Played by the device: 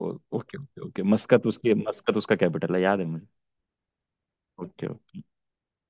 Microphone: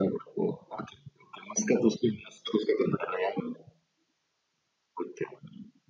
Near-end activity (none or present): none